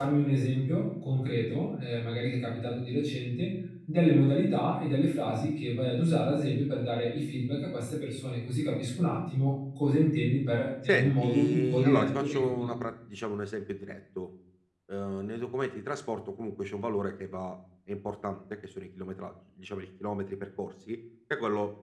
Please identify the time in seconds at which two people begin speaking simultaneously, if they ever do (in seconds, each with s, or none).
10.9 s